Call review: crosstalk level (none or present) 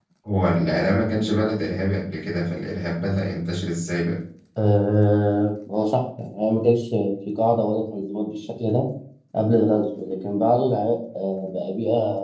none